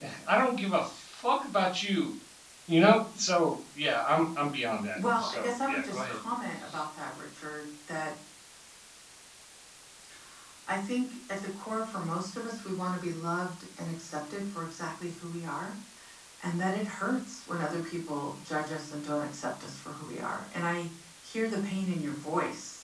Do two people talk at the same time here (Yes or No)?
Yes